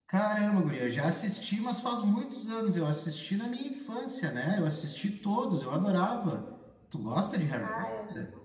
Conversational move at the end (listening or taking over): taking over